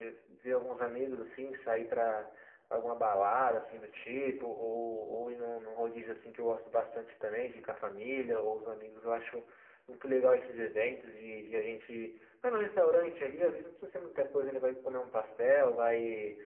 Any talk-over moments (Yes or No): No